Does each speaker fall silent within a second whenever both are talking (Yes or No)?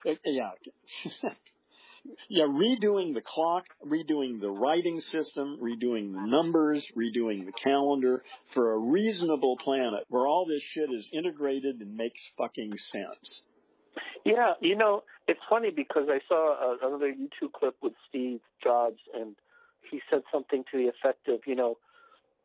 Yes